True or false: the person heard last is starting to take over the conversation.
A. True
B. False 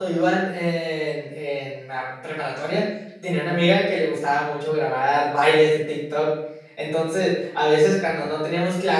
B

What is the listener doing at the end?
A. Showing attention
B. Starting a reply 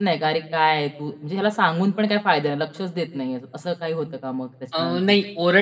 B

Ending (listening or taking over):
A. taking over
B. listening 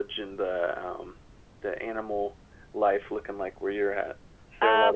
A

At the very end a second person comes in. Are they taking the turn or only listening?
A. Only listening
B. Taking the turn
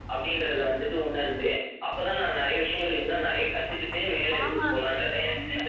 B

